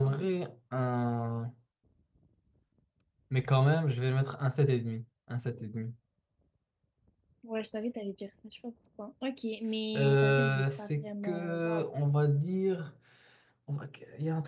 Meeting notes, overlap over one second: present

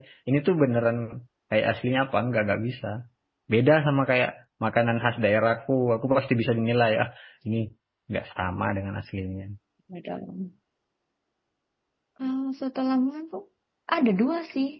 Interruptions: none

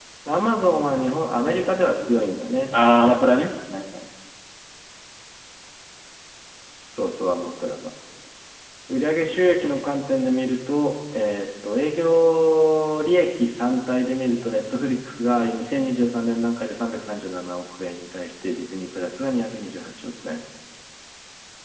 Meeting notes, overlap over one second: present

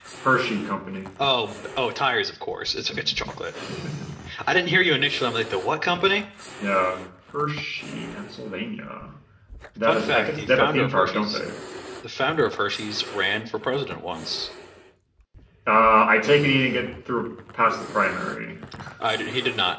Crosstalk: present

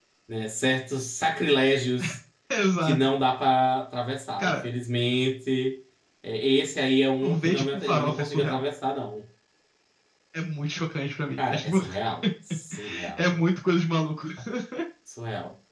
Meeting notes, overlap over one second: present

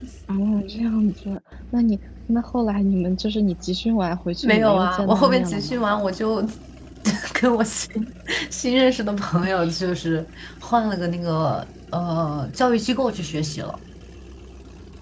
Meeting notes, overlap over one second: present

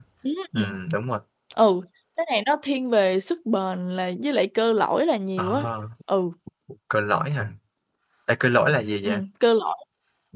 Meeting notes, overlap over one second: none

